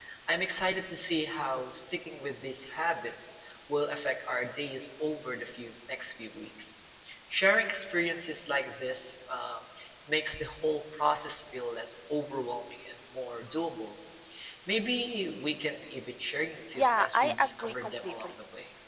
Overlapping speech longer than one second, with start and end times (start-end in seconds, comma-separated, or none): 16.8-18.3